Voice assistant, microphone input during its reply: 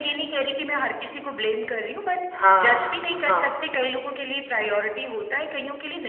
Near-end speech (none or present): present